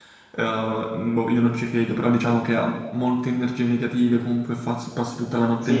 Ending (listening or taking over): taking over